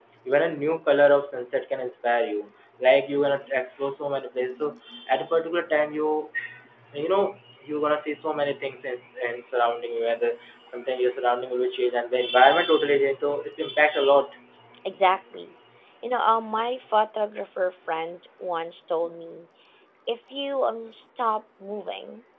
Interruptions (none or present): none